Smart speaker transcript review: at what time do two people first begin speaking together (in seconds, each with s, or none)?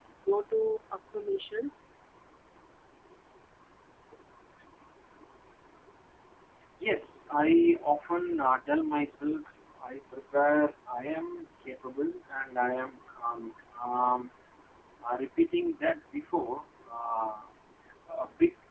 none